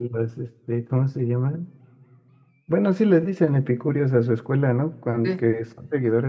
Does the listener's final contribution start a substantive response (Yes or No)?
No